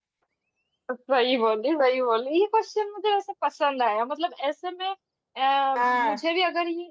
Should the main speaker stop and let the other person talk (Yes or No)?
No